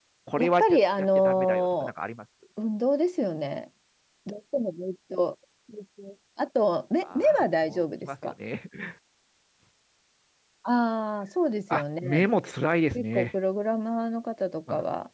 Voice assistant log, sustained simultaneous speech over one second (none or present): present